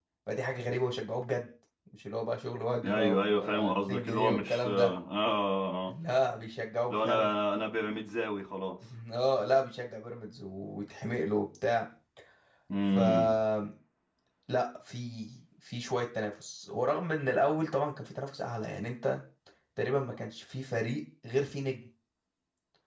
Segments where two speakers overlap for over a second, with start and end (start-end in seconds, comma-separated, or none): 2.8-4.9